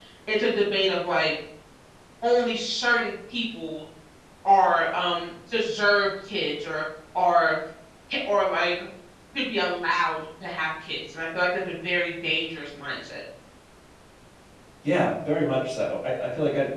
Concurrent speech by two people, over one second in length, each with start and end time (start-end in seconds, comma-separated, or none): none